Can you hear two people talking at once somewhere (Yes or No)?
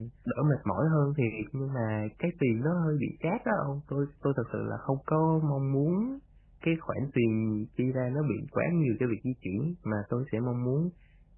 No